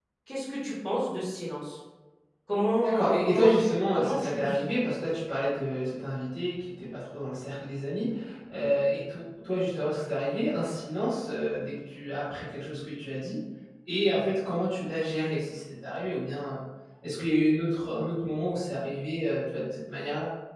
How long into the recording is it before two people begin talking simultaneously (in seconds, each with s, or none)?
2.8 s